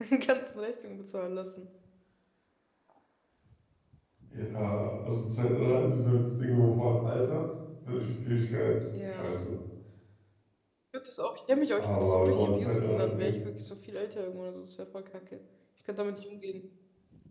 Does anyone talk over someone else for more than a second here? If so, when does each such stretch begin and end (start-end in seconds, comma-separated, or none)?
11.8-13.3